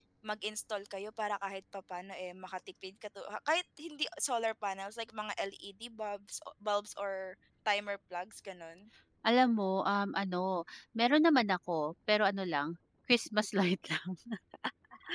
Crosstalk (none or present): none